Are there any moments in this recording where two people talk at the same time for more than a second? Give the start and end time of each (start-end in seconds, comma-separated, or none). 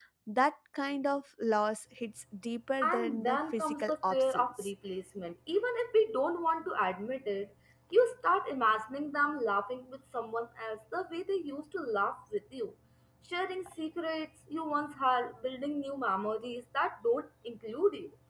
2.8-4.7